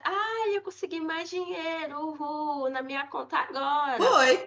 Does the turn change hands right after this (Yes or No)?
Yes